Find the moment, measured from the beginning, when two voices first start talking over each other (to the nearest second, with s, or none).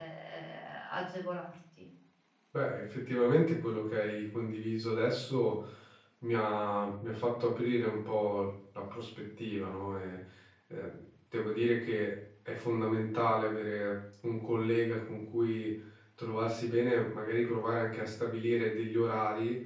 none